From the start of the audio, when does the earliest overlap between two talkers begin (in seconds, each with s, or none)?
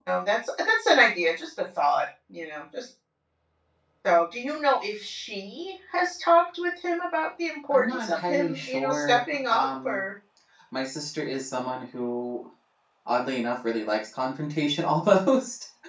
7.7 s